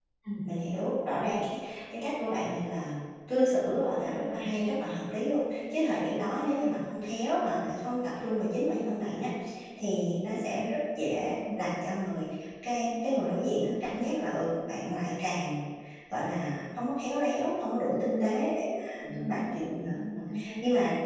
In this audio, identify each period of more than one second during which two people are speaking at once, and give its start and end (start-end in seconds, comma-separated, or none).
none